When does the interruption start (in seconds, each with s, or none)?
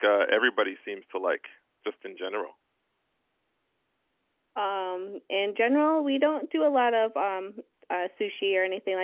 none